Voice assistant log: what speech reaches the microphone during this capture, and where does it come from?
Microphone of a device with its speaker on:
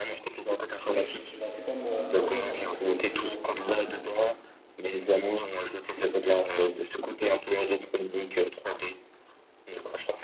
both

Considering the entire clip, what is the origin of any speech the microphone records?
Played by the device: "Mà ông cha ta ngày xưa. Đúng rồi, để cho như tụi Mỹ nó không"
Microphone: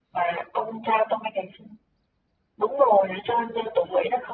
echo only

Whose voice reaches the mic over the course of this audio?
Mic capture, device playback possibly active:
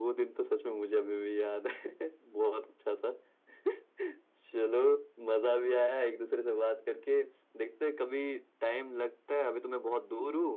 echo only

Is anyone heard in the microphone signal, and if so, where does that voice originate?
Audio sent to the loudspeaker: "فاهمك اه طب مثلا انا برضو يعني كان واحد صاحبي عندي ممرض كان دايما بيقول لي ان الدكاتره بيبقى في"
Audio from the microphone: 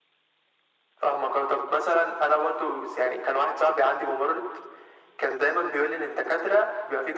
echo only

